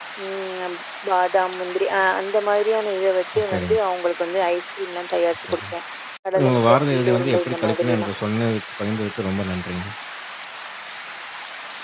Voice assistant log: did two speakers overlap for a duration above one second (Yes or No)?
Yes